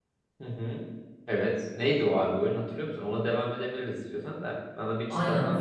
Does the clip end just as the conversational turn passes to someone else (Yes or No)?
Yes